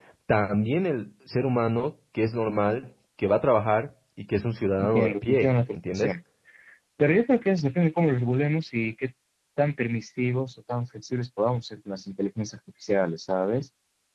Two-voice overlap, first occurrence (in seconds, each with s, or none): 4.8 s